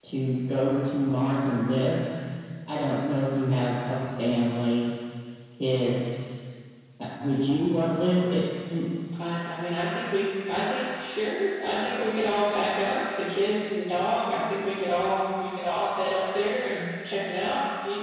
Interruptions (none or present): none